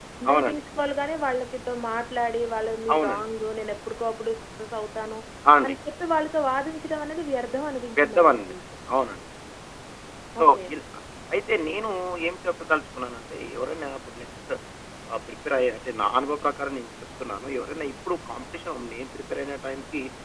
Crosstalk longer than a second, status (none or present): none